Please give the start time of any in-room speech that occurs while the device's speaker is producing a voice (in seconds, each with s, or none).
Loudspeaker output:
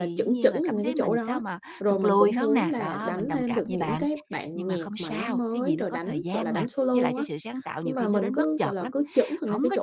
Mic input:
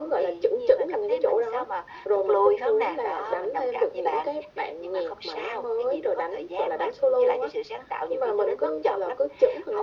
none